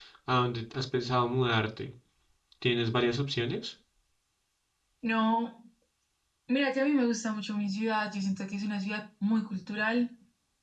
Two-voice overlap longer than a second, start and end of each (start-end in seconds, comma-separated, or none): none